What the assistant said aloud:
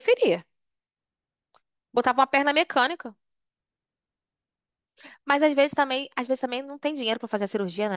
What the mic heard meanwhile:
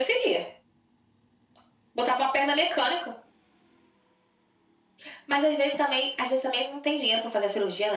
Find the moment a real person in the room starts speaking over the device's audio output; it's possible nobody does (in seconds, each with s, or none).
none